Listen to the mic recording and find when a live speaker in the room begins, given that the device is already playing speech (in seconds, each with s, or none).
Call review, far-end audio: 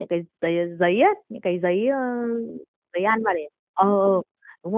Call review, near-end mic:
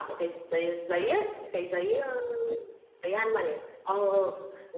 none